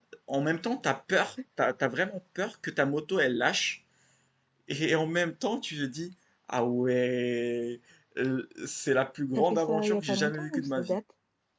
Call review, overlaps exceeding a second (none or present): present